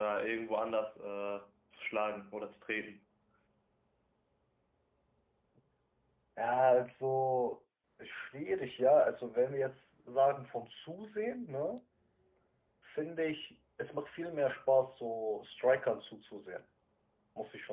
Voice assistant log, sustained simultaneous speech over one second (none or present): none